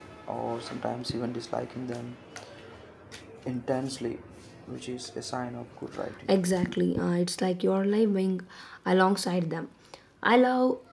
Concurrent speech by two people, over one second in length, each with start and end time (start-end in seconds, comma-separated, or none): none